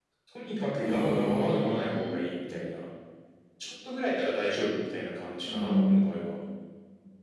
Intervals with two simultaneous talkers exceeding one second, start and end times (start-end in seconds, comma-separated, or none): 0.8-2.2